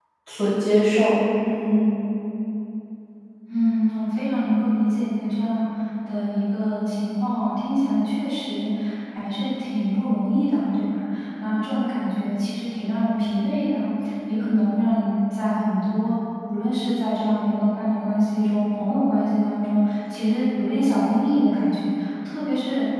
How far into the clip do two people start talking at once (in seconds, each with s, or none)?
none